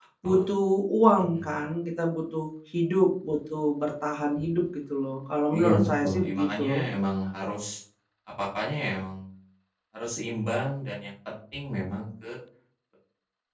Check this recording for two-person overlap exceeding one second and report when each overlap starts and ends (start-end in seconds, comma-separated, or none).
5.5-6.8